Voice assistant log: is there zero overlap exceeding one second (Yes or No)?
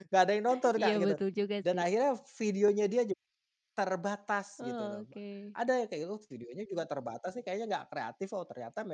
Yes